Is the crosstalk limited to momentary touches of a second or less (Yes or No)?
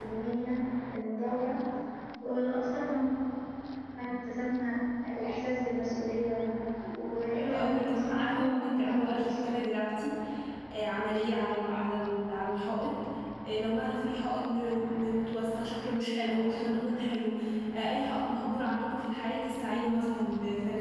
No